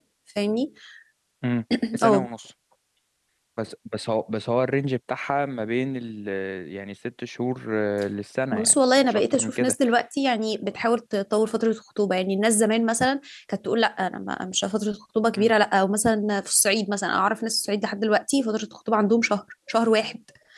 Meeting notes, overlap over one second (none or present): present